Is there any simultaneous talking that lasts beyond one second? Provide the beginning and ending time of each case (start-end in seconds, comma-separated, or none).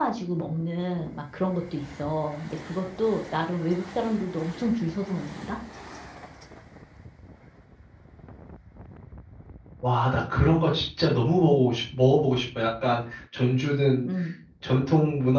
none